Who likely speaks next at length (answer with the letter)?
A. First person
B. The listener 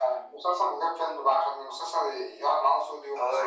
B